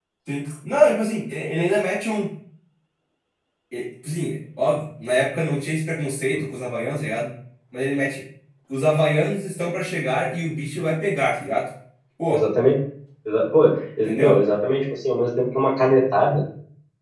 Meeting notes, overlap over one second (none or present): none